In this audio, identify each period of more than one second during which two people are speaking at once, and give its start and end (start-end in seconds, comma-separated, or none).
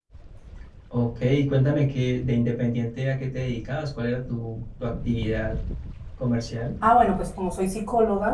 none